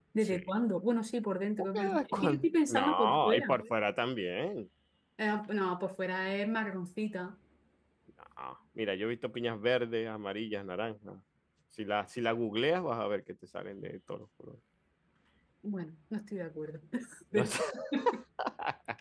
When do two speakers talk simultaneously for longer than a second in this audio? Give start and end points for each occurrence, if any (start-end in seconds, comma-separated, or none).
1.6-3.6